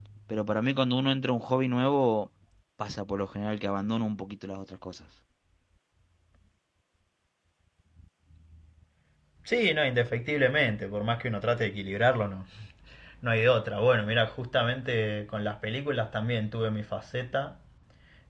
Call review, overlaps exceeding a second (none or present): none